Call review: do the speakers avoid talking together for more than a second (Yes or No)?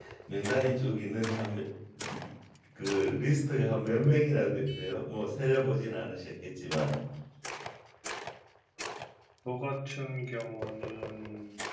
Yes